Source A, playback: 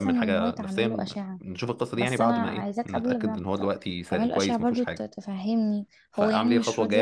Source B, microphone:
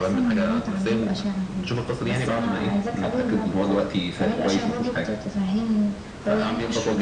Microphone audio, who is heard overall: echo only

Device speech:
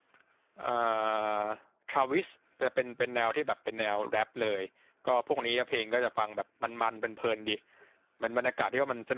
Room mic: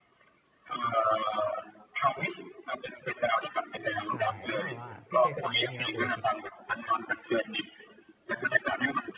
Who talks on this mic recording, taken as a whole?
both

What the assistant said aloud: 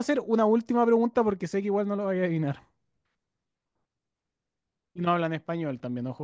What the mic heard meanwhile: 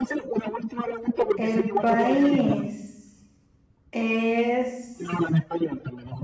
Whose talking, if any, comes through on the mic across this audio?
both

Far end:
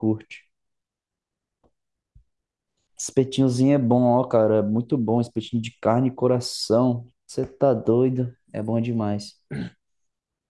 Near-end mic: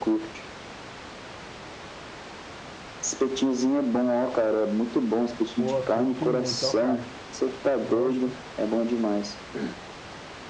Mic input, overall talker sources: both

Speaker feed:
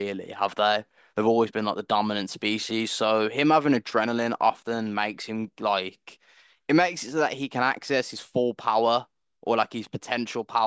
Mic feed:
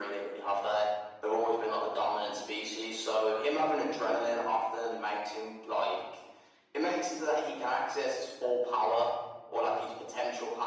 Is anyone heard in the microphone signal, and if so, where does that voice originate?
echo only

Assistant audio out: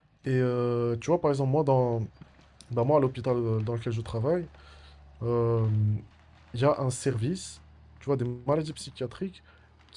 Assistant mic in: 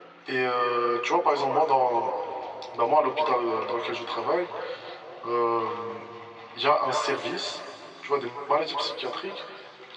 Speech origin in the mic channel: echo only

